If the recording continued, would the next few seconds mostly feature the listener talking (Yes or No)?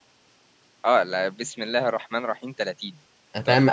Yes